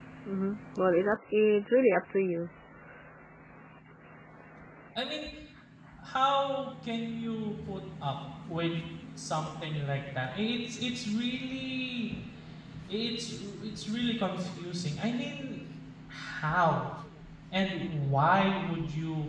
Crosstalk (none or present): none